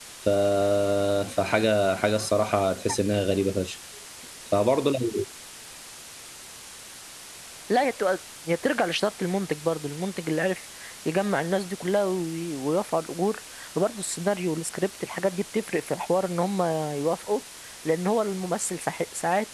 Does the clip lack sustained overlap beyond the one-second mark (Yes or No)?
Yes